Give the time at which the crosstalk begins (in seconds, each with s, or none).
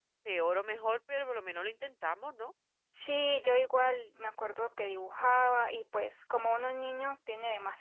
none